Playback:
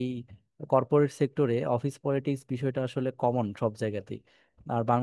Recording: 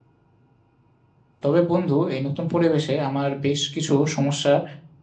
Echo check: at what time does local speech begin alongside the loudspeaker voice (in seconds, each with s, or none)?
1.4 s